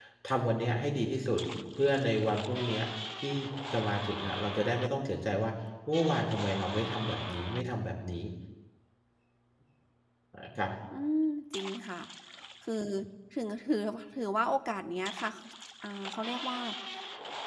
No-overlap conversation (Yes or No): Yes